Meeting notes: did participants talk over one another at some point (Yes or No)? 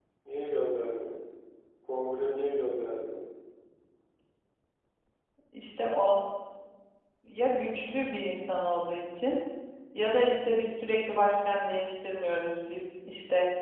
No